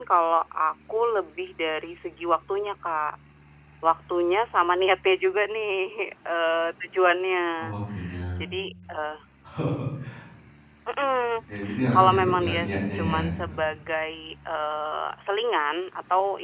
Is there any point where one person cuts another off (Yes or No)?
Yes